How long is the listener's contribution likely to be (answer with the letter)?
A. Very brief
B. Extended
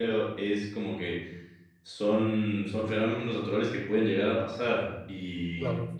A